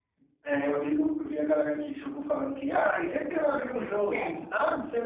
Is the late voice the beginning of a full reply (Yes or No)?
No